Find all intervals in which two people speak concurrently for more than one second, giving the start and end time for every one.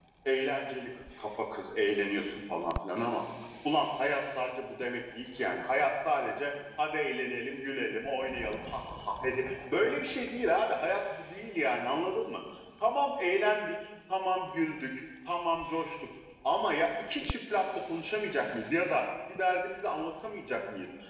none

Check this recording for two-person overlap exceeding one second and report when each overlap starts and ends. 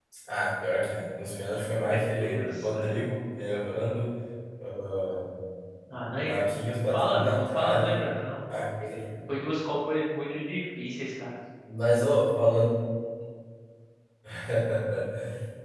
1.8-3.0, 5.9-8.1

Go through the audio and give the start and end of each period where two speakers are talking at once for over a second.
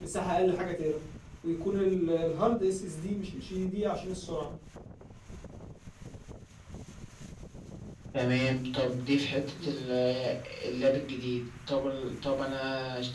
none

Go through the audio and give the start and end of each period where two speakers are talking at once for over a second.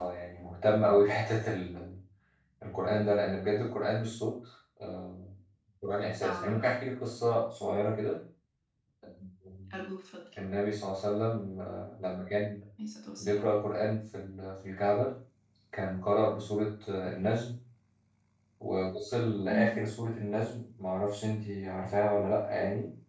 none

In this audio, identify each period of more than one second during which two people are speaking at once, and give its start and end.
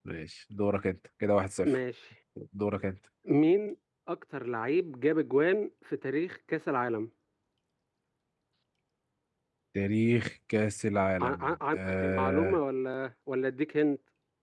11.2-12.6

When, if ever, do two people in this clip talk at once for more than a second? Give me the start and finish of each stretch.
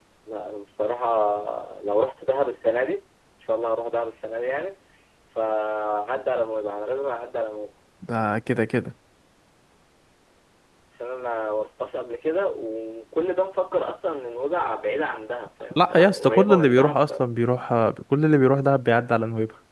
15.8-16.9

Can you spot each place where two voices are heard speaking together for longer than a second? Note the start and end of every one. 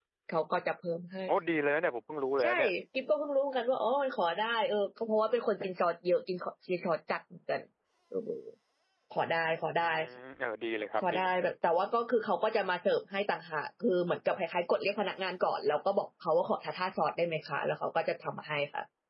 none

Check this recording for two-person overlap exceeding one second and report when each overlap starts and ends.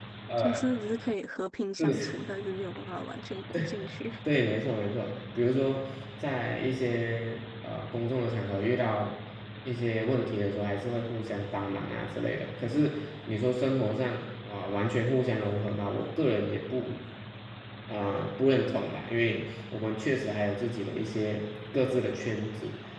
none

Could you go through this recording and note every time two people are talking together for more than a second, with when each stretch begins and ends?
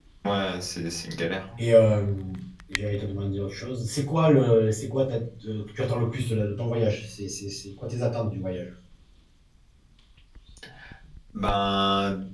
none

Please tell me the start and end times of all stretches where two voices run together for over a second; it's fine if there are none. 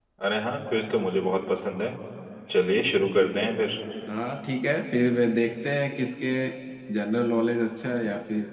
none

